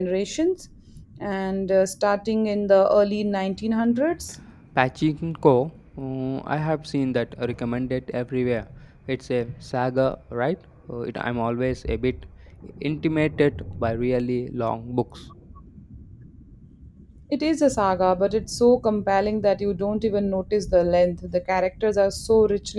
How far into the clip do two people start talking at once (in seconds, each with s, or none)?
none